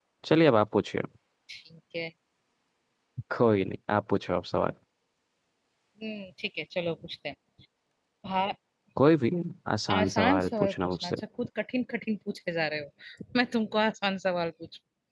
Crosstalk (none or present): present